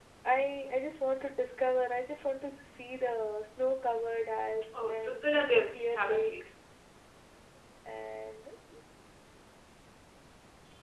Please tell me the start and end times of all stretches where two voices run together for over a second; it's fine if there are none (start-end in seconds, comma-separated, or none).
4.9-6.3